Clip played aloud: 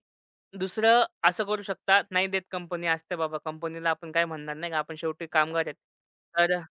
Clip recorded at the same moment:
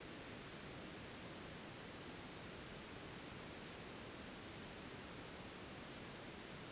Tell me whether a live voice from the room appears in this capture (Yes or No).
No